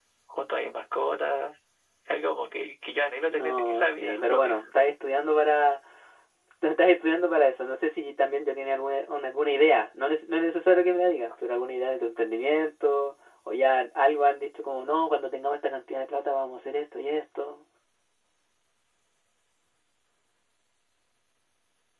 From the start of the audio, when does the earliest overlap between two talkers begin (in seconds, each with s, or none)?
3.3 s